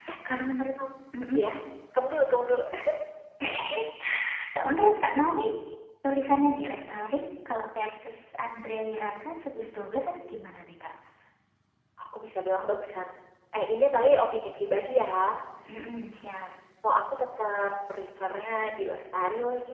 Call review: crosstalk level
none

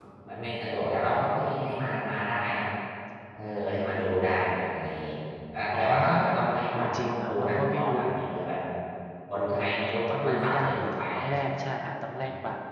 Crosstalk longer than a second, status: present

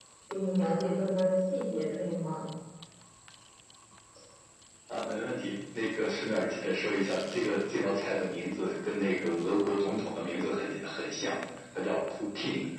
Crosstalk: none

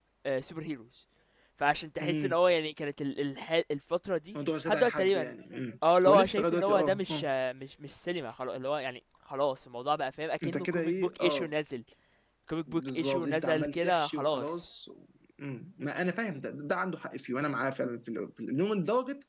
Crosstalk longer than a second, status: present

